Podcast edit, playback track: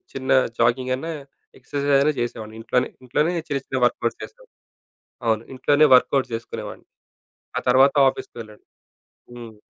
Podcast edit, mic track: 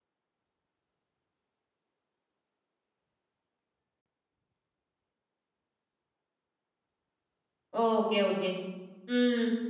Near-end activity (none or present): present